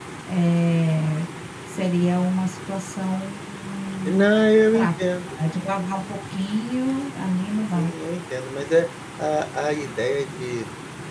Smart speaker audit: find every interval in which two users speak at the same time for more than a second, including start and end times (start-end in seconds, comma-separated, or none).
none